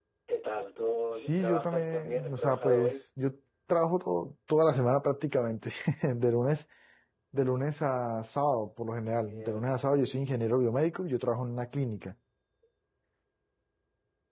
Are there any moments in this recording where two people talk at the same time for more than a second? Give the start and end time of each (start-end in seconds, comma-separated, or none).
1.2-2.9